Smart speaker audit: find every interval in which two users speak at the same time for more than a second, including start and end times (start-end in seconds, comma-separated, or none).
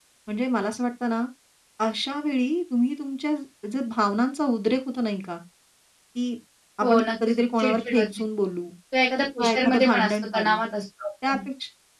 6.8-8.1, 9.4-10.6